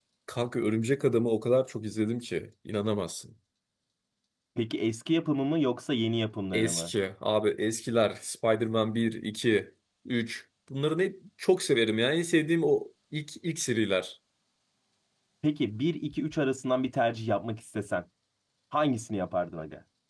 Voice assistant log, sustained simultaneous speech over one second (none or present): none